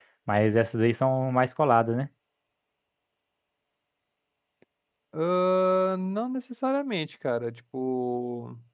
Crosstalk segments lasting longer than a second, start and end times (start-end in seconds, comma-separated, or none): none